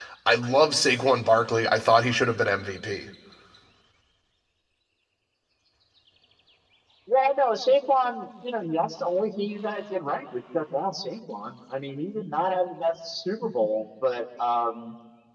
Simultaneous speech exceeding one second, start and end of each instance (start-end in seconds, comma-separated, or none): none